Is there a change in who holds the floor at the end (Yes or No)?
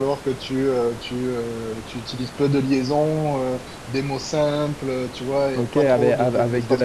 Yes